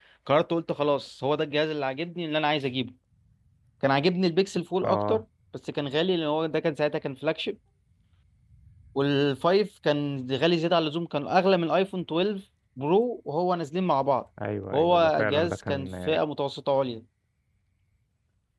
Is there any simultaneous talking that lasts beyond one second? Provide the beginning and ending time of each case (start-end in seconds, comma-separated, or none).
14.7-16.2